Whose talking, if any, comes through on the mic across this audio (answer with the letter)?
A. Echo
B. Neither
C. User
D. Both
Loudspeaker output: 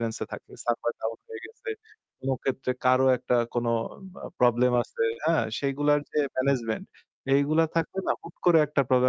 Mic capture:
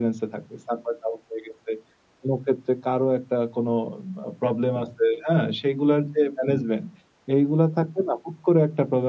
A